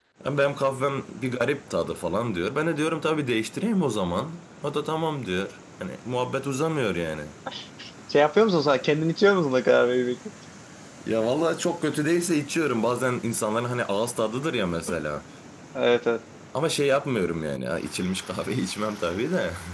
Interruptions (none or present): none